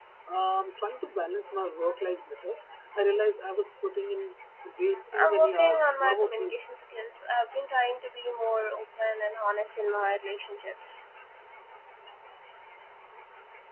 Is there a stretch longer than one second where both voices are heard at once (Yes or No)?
Yes